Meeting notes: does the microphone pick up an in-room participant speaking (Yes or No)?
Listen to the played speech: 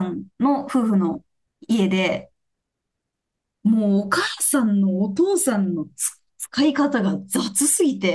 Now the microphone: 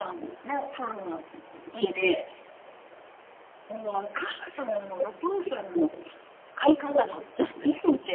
No